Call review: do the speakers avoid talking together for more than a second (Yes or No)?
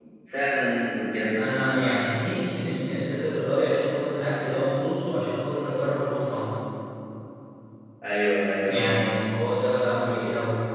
Yes